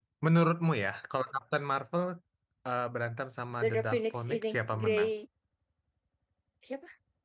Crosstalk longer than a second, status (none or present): present